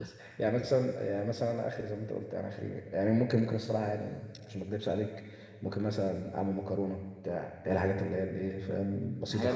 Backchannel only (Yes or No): Yes